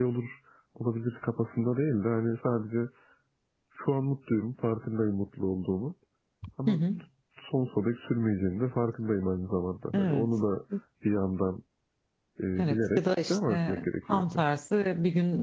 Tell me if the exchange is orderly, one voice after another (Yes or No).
No